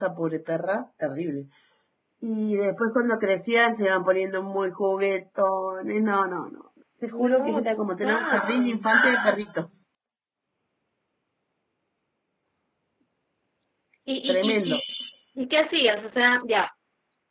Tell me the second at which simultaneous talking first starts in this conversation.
7 s

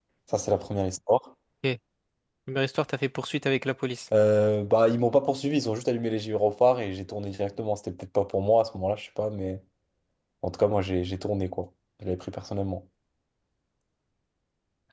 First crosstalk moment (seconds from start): none

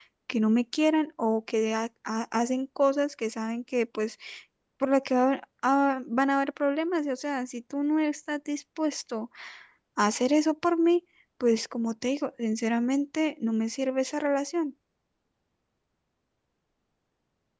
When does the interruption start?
none

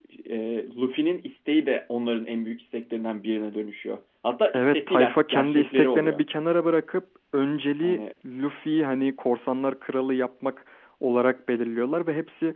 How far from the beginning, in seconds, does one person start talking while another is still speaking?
5 s

